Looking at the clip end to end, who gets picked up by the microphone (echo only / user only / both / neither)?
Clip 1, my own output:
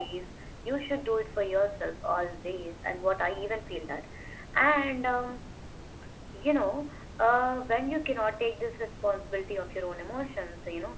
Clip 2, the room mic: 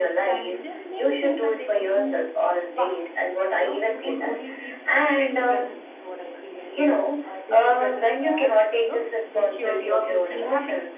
both